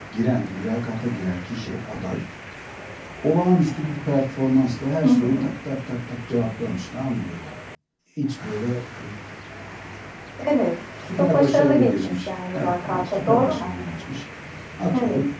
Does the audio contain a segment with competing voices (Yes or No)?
Yes